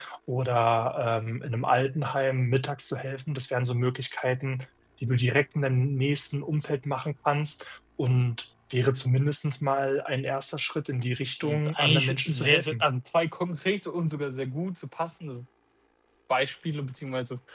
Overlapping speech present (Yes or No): Yes